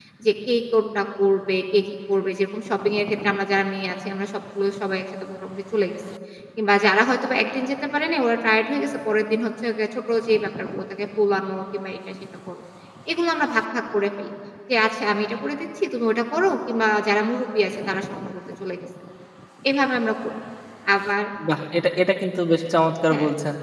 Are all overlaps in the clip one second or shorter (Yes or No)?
Yes